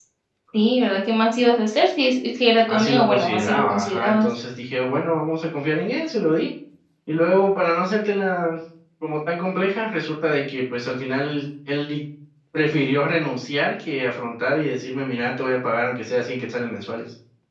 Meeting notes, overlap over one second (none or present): present